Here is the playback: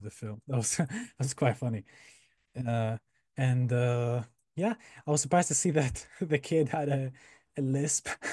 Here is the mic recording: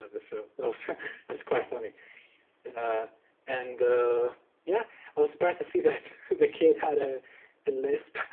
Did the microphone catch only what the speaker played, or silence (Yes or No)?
Yes